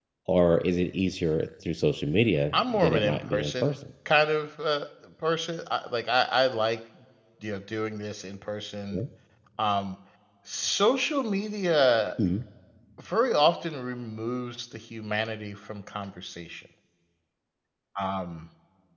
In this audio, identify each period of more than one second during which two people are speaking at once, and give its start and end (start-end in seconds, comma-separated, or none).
2.5-3.7